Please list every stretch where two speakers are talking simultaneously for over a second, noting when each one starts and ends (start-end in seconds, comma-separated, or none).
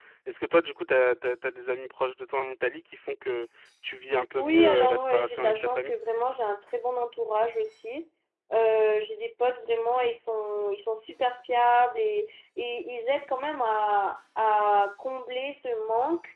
4.4-5.9